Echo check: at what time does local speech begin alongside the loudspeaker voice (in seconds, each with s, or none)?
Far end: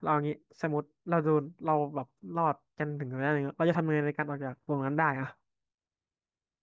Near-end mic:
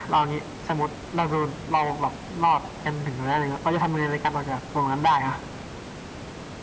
none